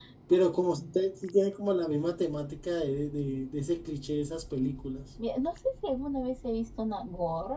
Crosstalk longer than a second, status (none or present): none